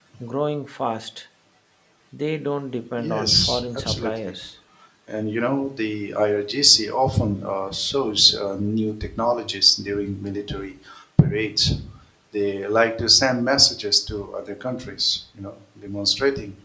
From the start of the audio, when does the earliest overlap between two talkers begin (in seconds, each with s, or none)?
3.0 s